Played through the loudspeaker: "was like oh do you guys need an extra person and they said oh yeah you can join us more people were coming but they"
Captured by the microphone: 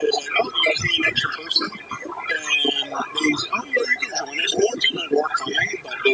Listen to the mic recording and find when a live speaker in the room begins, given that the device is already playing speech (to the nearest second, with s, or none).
none